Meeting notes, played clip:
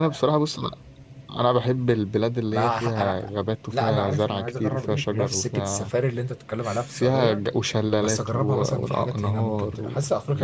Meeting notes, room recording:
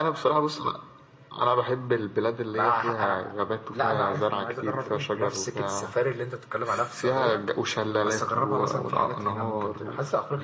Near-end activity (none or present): none